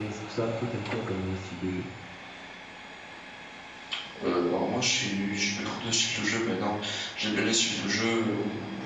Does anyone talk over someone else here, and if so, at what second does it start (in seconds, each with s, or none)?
none